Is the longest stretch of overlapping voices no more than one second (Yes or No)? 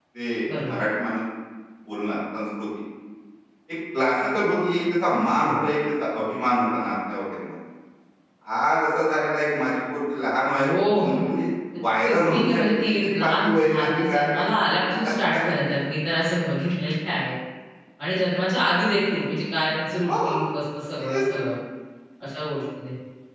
No